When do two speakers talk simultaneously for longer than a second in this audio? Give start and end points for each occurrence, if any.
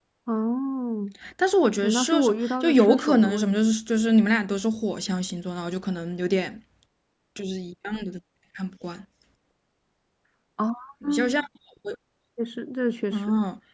1.8-3.6

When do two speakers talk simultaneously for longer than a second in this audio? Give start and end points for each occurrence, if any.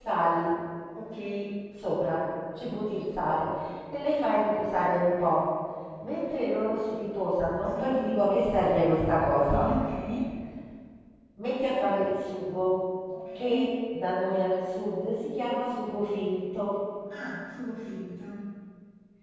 none

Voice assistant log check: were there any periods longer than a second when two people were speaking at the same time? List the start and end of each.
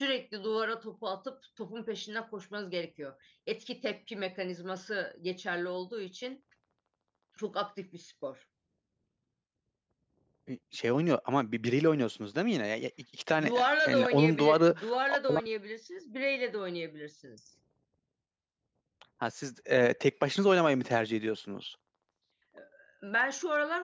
13.4-14.7

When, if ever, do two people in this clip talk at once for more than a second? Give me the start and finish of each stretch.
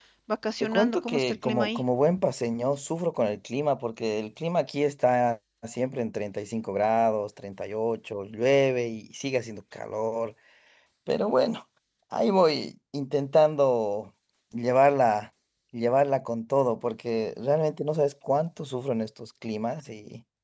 0.6-1.8

